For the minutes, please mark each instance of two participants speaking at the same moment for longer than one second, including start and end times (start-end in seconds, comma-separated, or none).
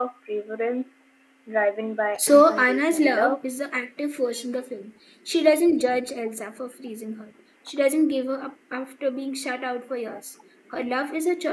2.2-3.4